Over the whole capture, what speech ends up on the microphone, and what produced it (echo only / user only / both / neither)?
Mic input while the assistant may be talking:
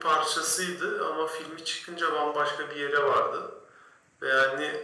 echo only